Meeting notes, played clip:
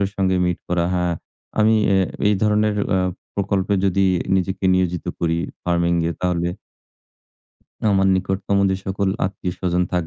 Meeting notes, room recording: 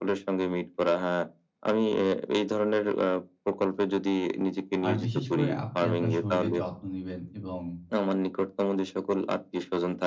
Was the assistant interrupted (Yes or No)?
Yes